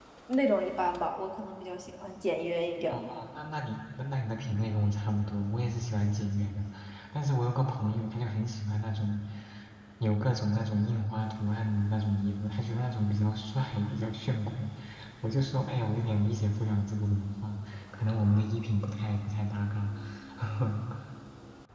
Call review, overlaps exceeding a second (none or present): none